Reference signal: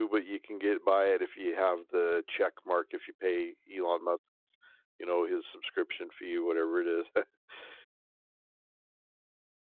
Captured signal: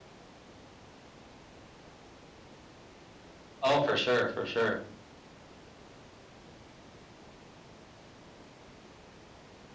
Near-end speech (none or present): present